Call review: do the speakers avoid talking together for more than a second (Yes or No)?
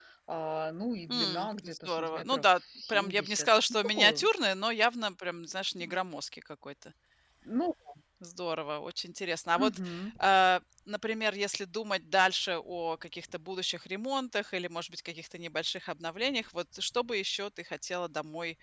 No